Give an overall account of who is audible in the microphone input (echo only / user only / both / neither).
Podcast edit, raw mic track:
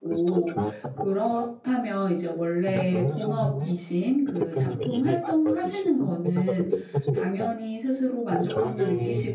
both